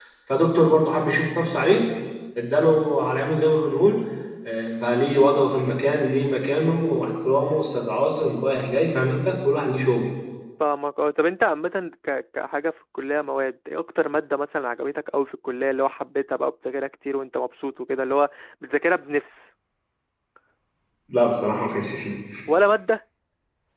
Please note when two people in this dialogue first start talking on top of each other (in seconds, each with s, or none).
none